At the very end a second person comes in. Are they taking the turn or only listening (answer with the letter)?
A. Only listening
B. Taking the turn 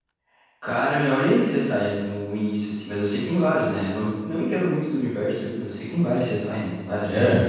B